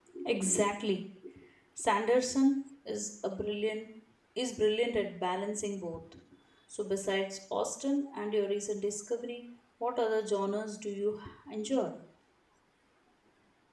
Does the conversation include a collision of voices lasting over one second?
No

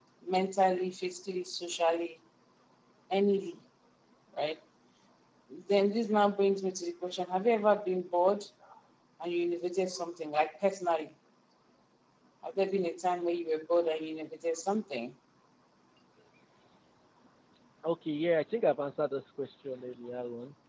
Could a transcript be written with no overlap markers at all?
Yes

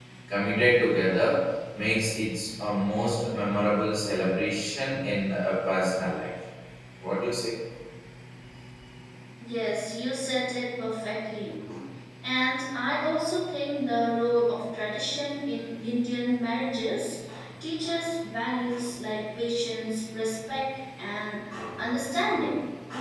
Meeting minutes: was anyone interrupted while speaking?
No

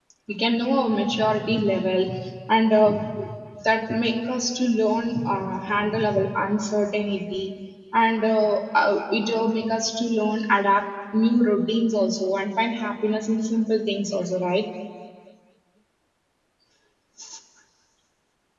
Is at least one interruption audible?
No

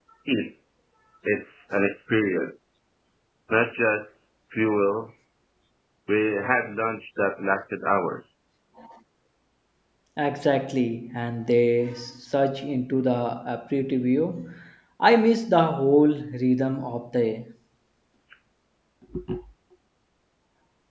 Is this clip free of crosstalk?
Yes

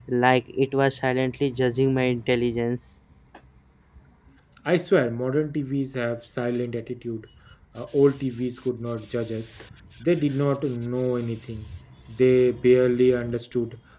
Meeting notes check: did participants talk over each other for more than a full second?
No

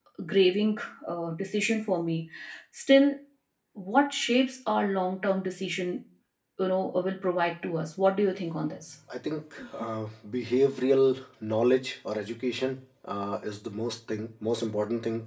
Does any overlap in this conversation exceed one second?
No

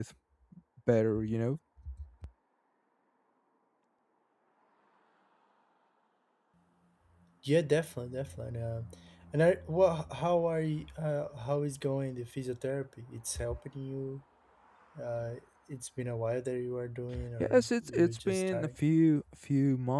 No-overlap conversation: No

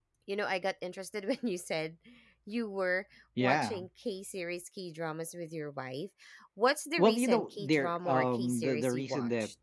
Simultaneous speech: Yes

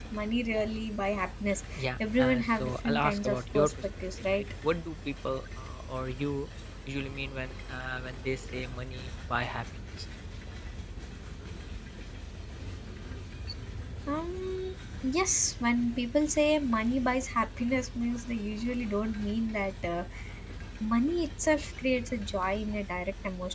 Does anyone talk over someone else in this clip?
Yes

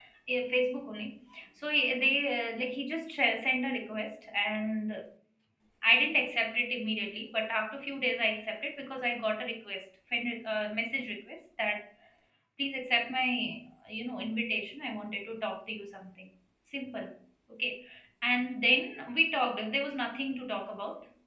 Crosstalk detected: No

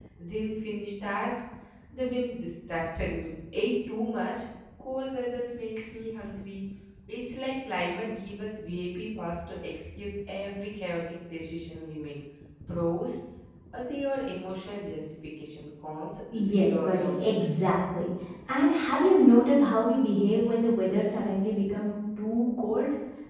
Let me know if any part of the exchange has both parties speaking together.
Yes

